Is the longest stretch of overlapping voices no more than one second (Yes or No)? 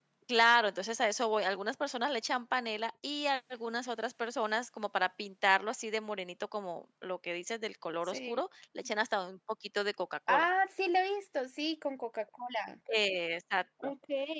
Yes